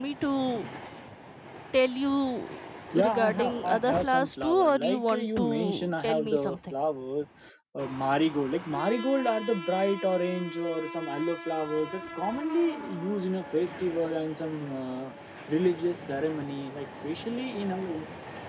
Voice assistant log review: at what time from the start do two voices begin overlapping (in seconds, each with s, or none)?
2.9 s